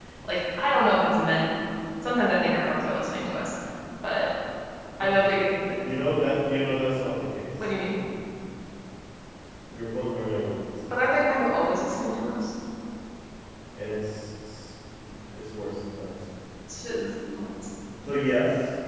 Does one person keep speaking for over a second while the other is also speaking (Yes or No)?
No